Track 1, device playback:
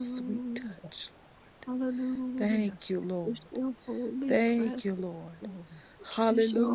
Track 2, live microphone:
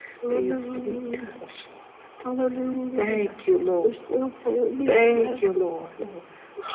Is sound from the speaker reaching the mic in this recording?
Yes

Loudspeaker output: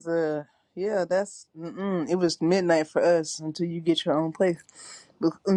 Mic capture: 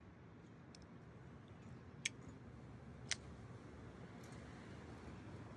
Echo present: No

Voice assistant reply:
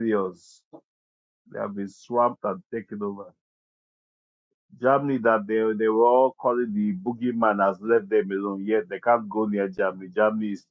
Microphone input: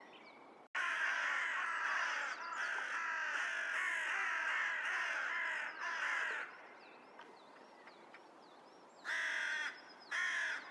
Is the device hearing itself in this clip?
No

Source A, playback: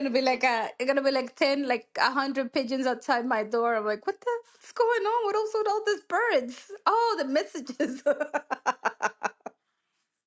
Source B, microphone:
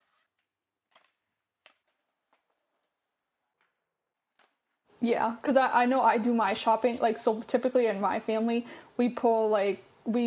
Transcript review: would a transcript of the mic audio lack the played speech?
Yes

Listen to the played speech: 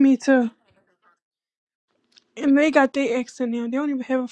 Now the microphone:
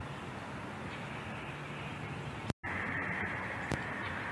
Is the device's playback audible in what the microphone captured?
No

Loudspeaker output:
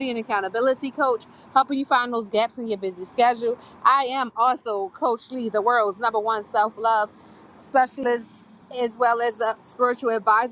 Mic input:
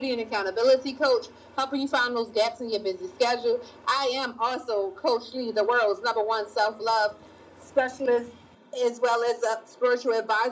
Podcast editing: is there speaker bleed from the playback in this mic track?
Yes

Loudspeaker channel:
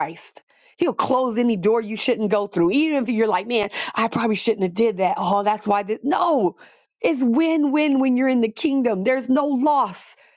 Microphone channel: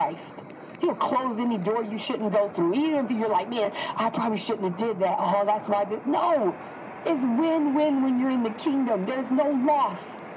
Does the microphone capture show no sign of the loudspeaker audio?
No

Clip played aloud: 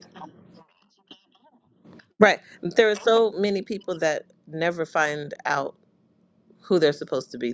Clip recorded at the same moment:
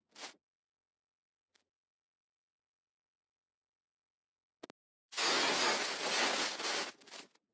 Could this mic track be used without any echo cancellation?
Yes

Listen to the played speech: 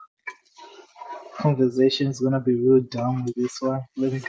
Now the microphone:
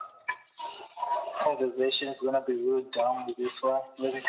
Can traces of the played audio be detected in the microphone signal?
Yes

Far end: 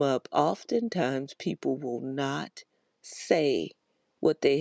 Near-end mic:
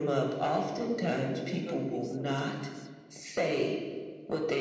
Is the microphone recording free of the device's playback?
No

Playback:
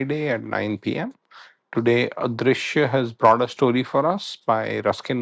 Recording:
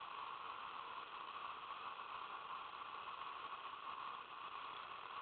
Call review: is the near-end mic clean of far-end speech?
Yes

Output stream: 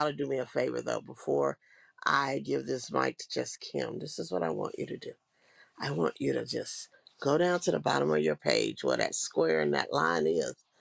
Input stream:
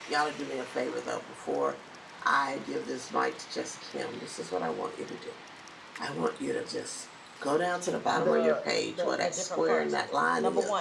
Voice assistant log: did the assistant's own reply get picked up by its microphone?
Yes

